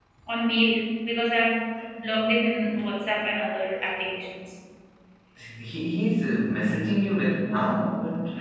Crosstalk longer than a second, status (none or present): none